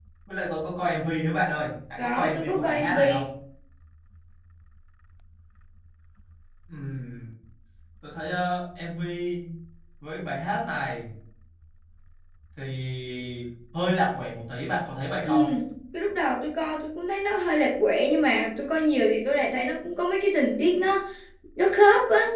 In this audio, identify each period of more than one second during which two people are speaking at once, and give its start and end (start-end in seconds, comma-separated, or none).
2.0-3.2